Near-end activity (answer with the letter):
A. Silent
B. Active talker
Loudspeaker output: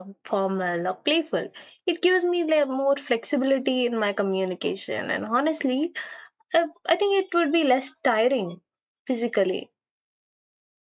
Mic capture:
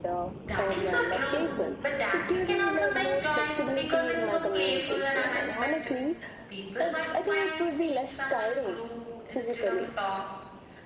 B